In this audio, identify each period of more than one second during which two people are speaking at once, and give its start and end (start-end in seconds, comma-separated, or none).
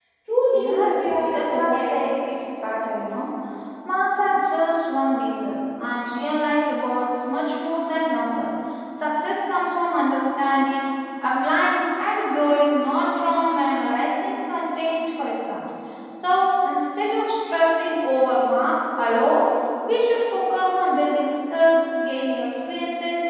0.5-2.0